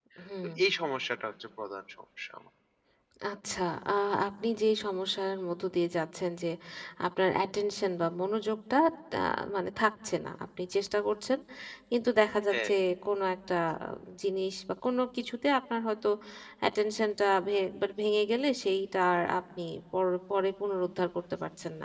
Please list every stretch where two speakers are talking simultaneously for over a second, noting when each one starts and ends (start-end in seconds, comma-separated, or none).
none